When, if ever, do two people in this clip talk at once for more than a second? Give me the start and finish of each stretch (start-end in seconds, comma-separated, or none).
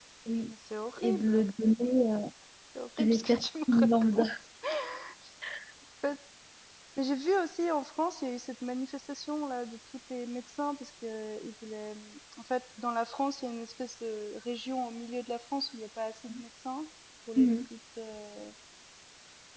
3.0-4.2